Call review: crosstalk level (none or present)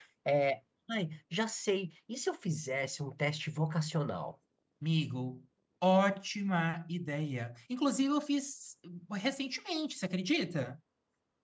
none